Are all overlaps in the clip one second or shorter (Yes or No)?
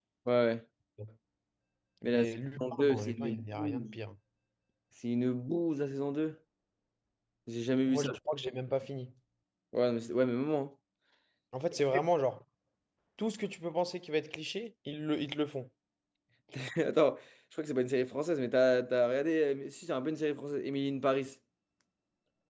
No